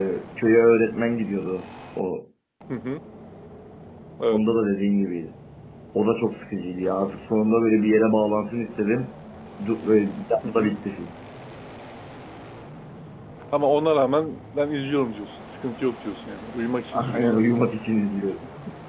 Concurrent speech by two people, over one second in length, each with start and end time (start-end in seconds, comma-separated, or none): none